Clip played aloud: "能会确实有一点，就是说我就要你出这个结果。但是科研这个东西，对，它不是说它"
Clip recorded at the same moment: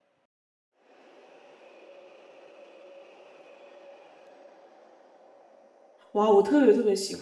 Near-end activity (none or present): present